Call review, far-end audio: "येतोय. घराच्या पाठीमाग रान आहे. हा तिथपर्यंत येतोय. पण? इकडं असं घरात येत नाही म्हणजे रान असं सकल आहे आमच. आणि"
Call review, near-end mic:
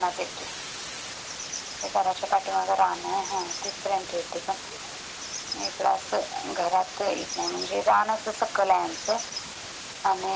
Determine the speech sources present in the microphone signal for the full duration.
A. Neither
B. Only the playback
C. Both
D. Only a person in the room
B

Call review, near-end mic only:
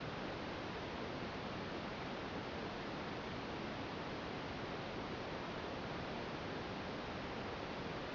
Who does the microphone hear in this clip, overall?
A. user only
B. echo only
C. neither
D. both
C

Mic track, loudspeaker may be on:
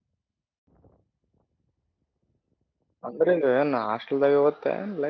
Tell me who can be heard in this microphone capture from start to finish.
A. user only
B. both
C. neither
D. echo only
A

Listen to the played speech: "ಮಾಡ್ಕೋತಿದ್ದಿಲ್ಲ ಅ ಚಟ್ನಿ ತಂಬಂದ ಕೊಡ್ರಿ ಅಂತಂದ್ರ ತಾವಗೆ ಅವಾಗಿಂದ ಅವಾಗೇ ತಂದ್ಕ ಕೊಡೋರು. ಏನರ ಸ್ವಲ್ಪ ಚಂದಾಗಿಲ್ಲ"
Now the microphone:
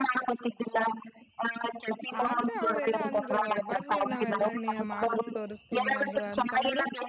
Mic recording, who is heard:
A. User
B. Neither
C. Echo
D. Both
D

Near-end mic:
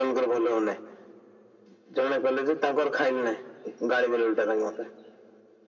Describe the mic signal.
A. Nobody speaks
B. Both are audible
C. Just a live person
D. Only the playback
D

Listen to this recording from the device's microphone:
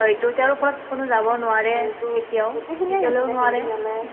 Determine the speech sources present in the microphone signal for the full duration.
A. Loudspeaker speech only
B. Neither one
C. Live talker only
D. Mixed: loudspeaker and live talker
D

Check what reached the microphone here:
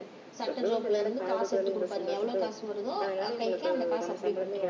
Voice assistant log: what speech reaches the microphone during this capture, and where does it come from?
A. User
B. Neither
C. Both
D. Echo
C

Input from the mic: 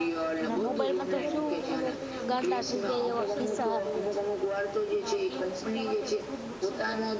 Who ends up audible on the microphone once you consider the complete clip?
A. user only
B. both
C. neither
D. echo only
B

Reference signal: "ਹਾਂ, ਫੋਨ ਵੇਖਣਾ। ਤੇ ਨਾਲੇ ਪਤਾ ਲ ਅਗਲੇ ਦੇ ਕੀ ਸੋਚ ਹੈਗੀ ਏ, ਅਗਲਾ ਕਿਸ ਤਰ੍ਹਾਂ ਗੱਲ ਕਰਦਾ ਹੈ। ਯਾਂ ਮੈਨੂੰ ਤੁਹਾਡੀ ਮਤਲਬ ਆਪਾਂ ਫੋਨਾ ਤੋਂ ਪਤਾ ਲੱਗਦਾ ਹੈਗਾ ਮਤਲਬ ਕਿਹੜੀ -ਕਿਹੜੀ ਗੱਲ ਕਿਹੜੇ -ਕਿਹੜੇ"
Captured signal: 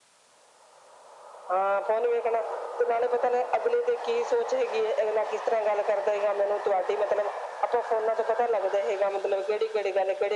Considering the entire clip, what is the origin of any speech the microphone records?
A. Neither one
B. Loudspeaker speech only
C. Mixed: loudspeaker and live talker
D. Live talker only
B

